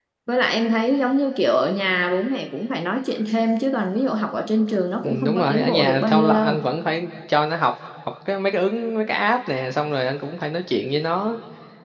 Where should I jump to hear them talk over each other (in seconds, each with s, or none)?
5.0 s